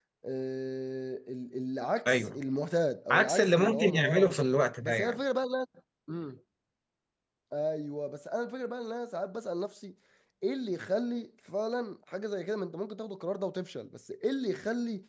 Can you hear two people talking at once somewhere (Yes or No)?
Yes